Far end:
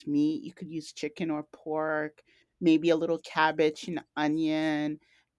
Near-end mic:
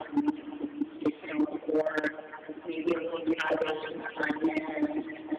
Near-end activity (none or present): none